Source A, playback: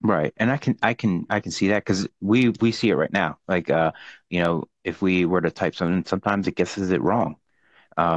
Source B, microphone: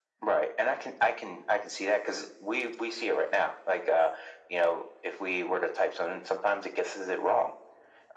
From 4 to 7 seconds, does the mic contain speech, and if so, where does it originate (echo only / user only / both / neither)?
echo only